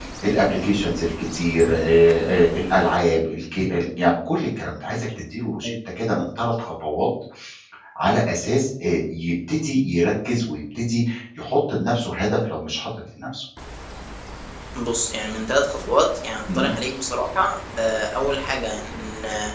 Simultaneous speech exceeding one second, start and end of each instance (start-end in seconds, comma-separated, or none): none